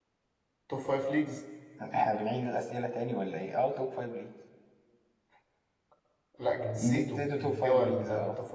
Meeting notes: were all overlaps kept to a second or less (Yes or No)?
No